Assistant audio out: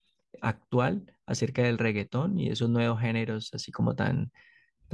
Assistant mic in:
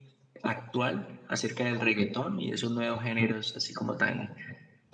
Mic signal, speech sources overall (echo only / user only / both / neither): echo only